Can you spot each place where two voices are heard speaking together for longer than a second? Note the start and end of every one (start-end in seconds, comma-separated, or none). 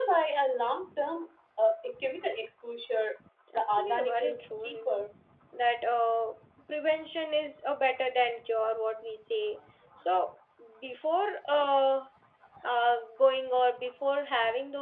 3.5-5.0